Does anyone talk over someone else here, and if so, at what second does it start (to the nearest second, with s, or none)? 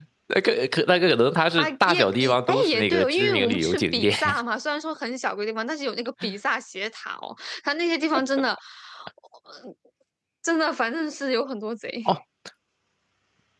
2 s